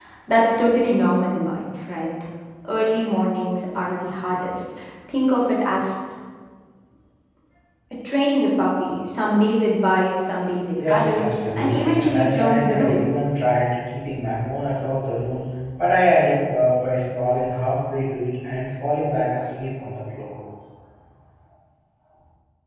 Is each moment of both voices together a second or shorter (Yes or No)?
No